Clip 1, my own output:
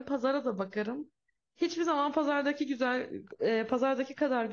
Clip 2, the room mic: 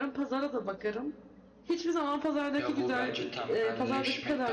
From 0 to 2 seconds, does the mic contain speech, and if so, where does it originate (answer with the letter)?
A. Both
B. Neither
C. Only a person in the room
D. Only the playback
D